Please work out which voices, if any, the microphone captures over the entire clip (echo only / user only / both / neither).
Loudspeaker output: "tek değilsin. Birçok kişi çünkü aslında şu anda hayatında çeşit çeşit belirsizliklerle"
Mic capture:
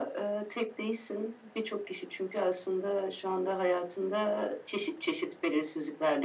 echo only